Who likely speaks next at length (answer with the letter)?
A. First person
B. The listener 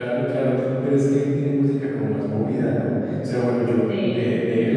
A